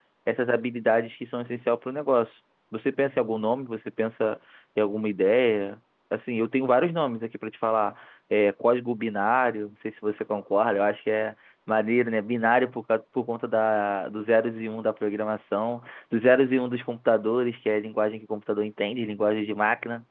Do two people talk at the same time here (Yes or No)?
No